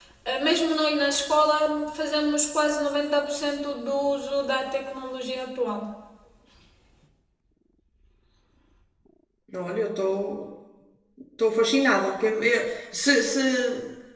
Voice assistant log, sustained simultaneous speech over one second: none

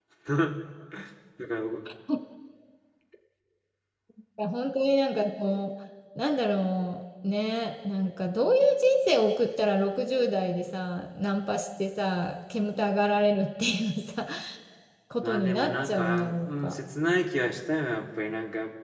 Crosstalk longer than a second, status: present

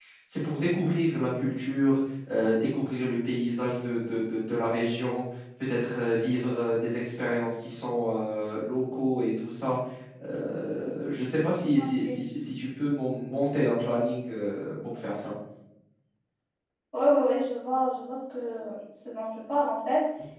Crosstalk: none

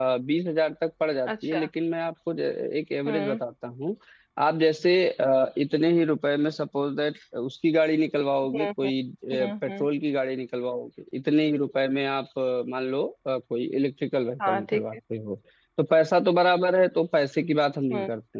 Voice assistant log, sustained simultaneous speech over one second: none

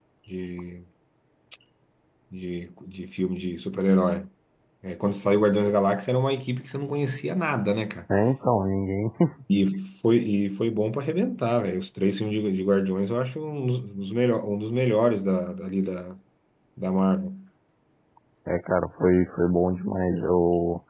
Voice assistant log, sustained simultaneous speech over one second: none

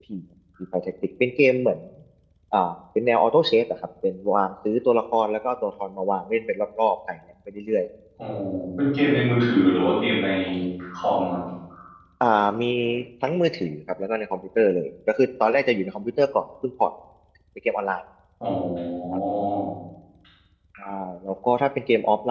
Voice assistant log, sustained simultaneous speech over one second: none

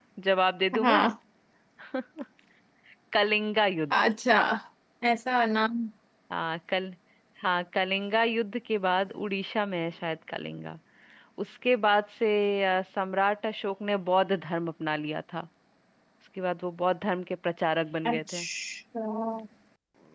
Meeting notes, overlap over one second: none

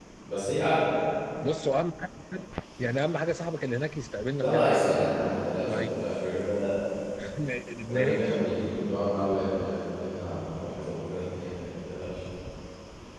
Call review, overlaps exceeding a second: none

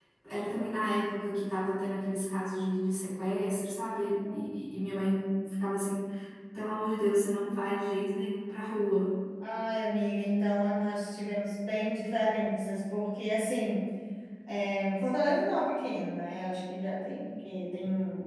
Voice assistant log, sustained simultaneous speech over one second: none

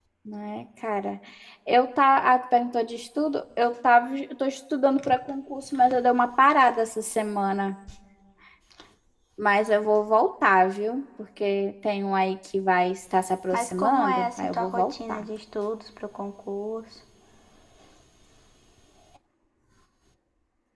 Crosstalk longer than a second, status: present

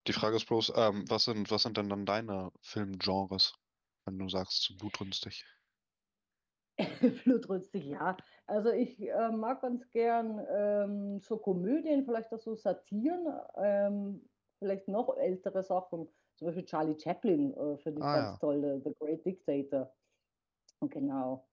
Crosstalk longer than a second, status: none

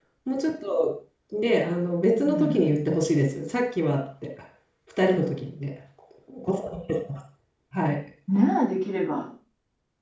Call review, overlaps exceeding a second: none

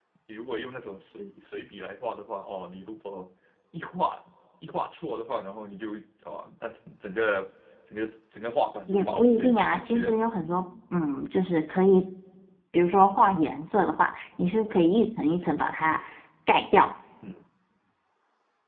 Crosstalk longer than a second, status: present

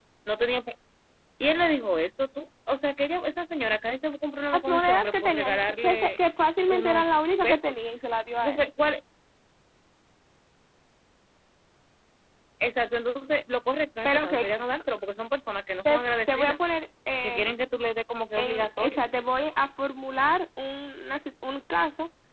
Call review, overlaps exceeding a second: present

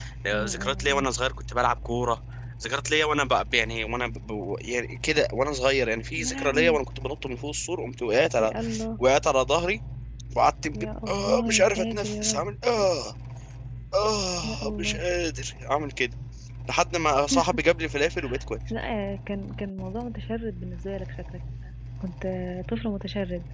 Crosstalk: present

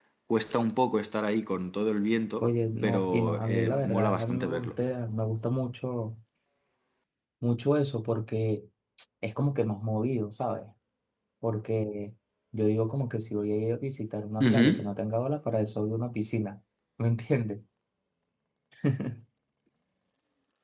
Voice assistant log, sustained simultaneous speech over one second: present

